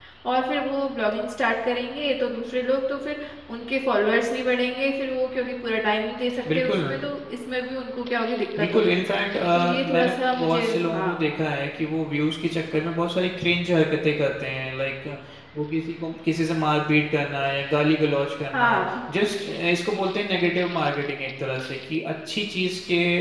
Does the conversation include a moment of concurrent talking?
Yes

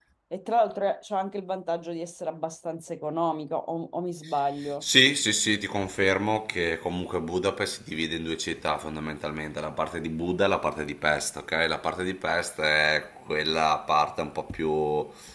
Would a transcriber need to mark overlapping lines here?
No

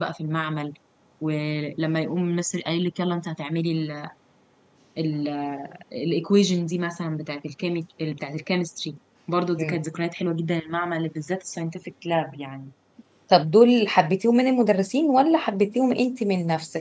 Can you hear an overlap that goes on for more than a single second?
No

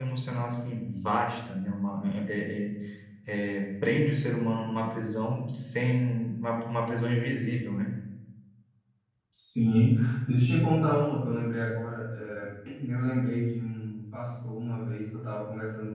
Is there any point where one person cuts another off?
No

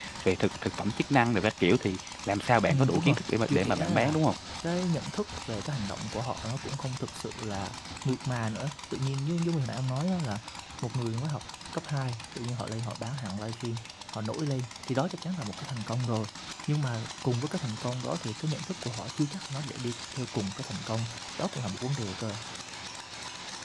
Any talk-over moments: Yes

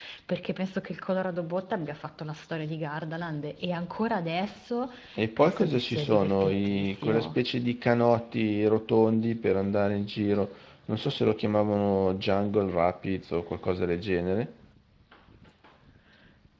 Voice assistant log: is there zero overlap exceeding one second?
No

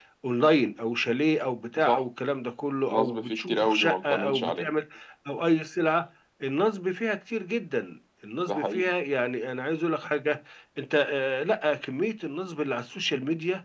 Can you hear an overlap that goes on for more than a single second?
Yes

